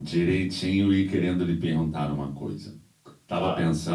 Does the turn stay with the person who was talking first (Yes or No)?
Yes